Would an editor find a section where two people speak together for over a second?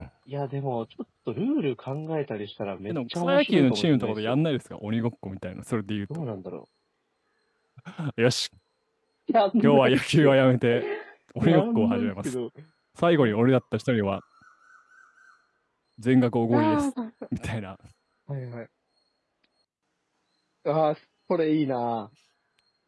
Yes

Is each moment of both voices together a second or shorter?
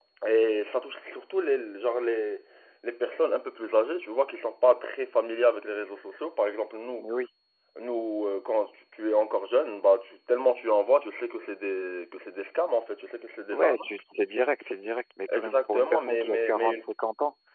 No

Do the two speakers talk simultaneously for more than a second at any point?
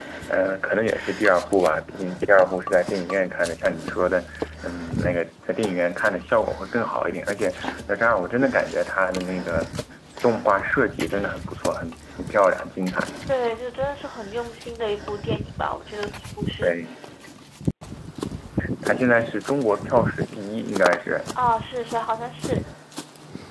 No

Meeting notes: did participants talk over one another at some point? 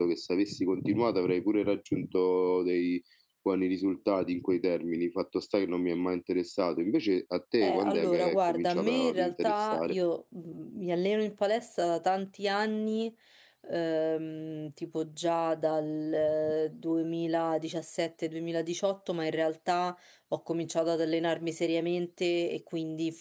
Yes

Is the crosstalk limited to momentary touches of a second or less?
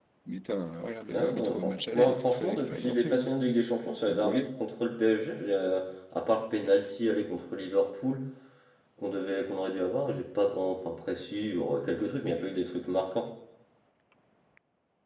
No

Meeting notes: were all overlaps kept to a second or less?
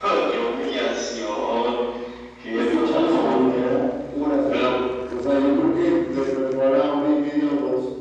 No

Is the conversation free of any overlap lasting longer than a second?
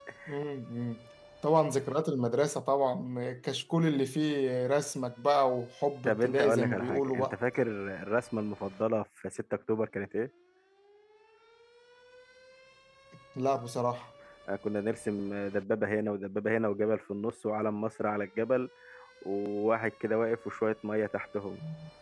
No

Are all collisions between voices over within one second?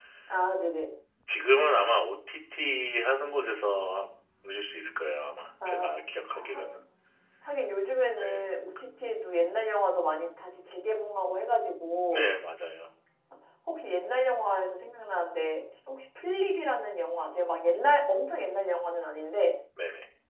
Yes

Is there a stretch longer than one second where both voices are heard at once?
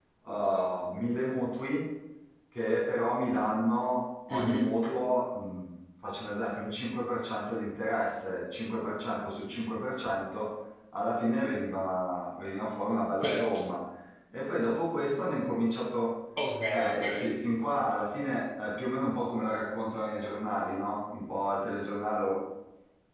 No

